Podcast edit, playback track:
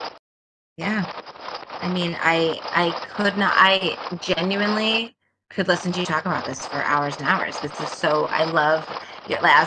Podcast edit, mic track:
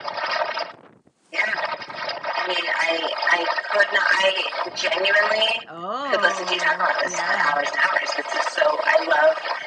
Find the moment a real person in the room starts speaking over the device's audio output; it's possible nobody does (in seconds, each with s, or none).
5.7 s